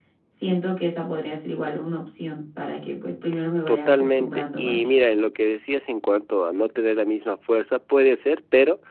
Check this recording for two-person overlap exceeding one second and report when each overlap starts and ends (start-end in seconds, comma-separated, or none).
3.7-4.9